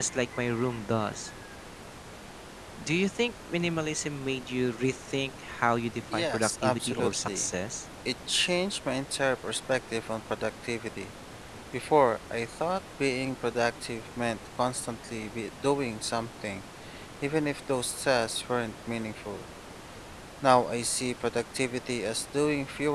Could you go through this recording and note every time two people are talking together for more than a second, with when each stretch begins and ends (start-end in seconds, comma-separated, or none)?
6.1-7.5